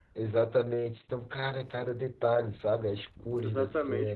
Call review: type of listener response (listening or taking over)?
taking over